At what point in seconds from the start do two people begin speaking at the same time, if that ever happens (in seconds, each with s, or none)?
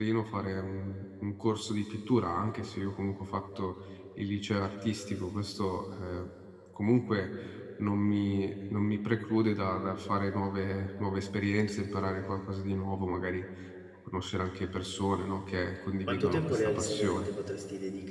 16.0 s